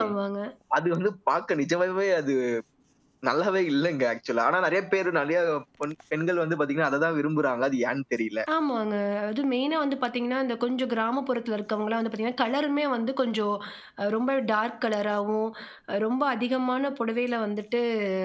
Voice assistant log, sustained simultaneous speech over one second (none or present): none